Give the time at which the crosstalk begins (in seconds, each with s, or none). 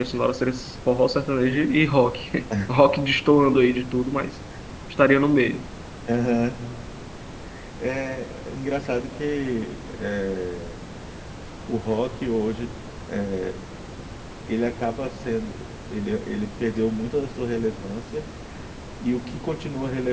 none